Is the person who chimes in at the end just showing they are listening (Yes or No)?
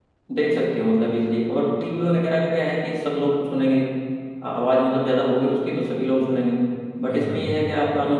Yes